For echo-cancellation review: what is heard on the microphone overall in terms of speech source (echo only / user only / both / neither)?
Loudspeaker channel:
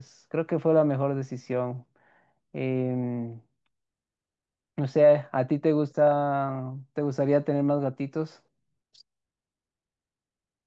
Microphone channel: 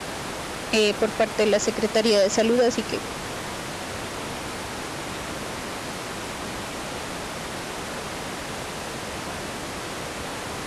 user only